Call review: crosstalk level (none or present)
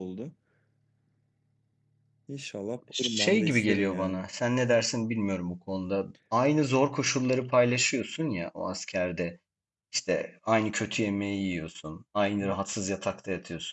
present